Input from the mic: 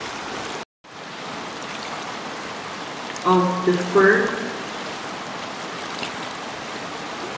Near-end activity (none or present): present